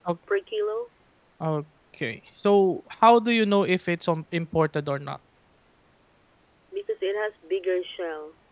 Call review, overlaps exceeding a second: none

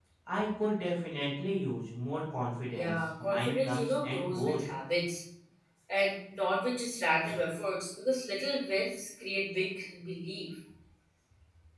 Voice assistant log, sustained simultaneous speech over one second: present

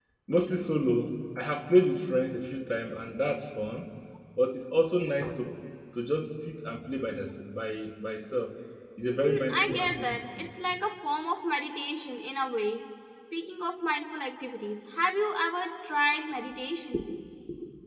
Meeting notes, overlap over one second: present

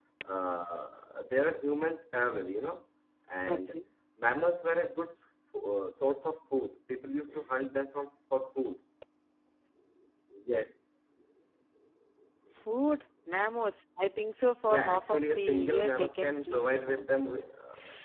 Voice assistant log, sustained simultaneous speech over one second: present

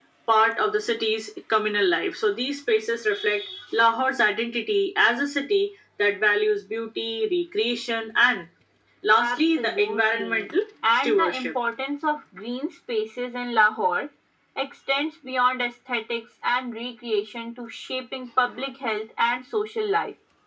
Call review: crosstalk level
present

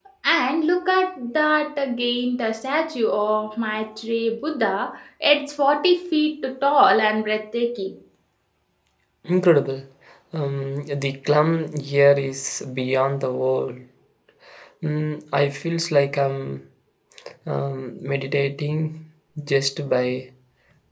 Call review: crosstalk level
none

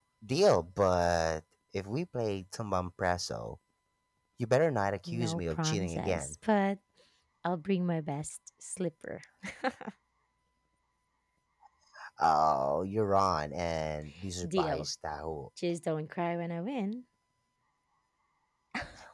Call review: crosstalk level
present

